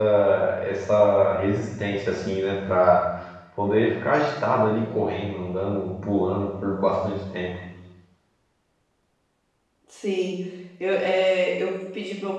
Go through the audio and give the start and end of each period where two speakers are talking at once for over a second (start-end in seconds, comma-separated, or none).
none